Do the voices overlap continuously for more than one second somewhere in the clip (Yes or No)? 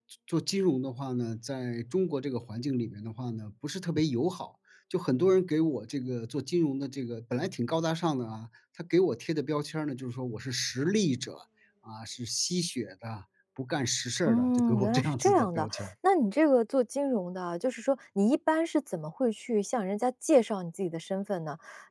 Yes